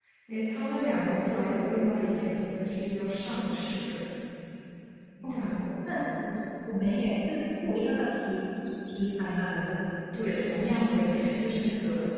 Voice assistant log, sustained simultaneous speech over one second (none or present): present